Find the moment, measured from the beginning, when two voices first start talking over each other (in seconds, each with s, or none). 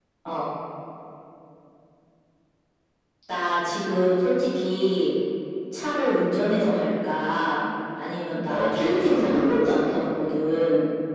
8.5 s